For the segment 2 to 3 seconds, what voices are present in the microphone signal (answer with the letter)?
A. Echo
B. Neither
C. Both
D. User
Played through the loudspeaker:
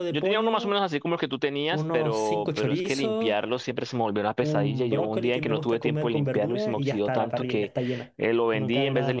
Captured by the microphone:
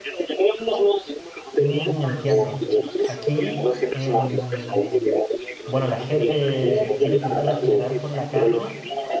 C